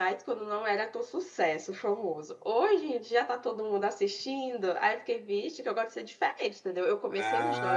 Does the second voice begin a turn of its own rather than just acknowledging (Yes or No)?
Yes